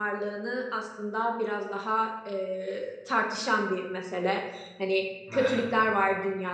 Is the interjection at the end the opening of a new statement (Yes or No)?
No